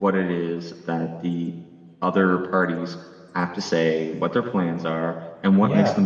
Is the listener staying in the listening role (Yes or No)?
Yes